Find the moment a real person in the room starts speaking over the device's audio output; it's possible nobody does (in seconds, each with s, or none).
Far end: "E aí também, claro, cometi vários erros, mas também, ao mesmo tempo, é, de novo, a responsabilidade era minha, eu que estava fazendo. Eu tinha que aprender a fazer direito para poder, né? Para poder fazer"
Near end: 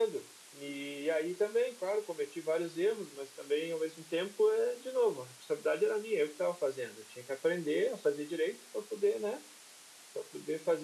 none